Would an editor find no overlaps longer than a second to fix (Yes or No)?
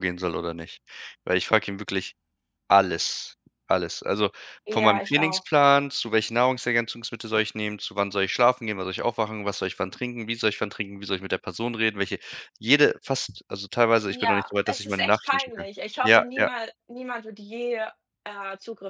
No